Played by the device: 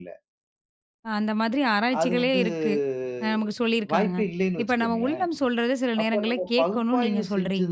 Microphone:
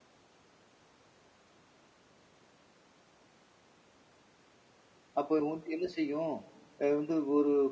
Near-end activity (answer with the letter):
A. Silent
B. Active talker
B